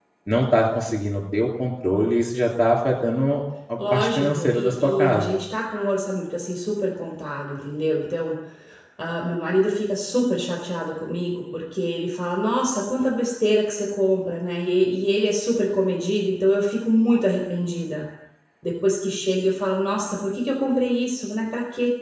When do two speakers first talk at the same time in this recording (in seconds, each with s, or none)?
3.8 s